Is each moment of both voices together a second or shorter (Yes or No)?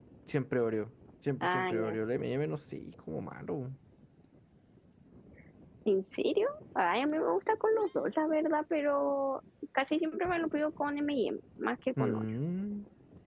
Yes